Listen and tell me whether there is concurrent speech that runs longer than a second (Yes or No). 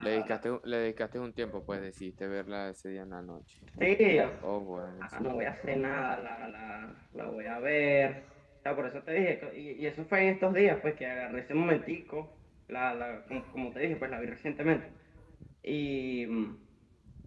No